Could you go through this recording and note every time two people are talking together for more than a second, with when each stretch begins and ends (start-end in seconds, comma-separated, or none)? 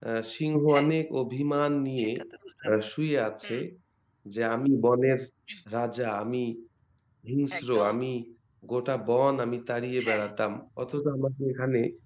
none